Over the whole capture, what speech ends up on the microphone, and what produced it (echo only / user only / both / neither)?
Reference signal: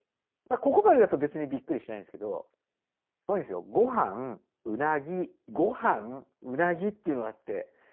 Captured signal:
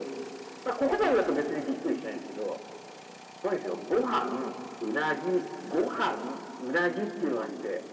echo only